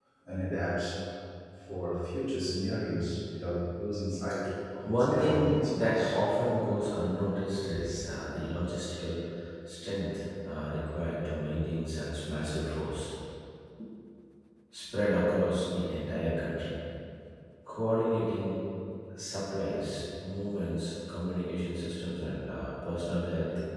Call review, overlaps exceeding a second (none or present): present